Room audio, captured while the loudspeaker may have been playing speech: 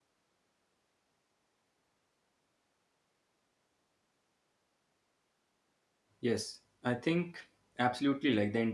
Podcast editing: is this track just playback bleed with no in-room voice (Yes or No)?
No